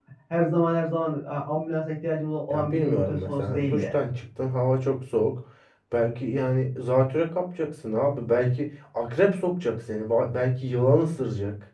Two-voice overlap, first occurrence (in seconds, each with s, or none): 2.5 s